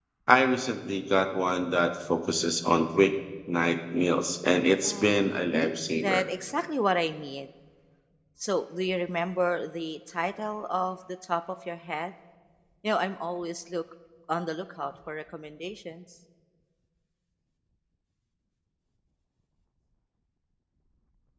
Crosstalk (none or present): present